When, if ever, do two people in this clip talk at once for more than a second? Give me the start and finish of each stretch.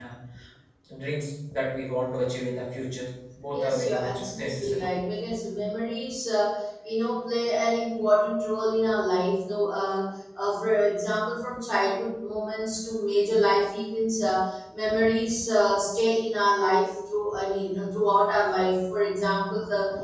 3.5-4.8

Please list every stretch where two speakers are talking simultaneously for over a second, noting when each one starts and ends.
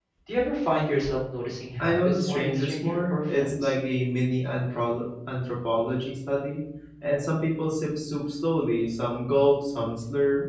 1.8-3.7

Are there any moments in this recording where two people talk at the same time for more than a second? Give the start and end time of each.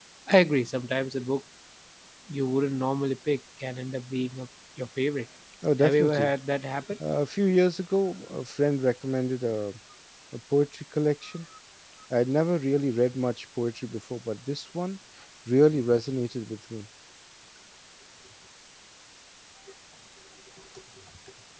none

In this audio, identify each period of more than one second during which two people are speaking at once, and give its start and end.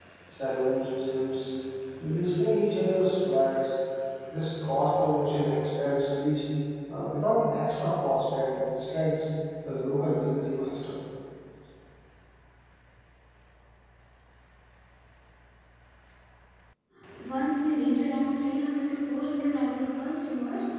none

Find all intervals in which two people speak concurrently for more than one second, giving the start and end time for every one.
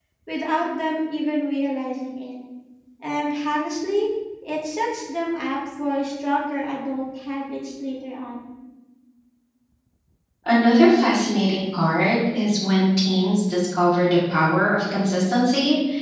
none

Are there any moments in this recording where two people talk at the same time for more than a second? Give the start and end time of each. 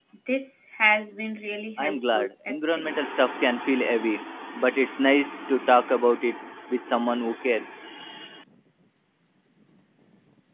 1.8-3.0

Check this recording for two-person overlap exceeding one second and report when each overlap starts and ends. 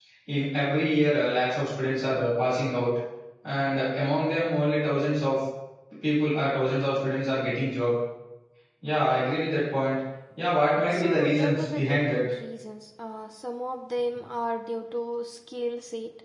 10.9-12.2

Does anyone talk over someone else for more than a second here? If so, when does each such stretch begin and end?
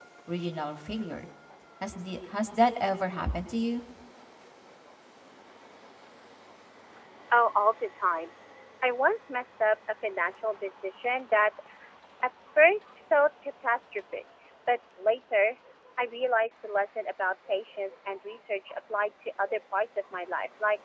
none

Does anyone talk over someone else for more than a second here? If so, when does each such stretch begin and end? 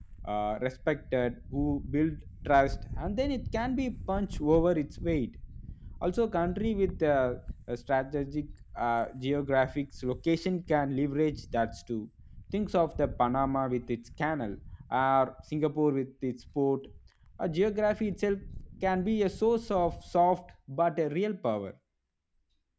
none

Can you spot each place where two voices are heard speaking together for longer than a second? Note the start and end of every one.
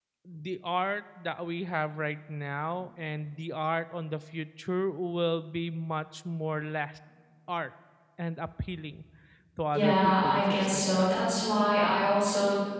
9.7-11.1

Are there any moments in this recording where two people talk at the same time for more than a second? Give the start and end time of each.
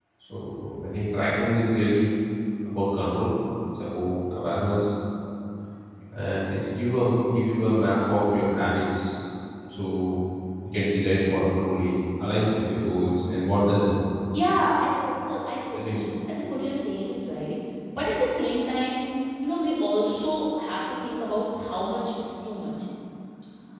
none

